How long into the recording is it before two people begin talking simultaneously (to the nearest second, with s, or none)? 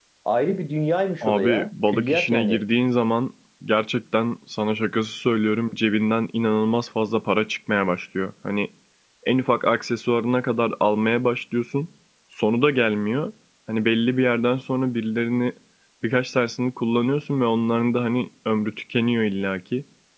1 s